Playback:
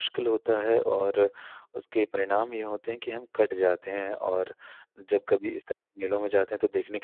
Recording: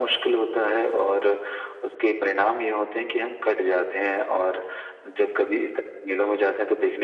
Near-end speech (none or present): none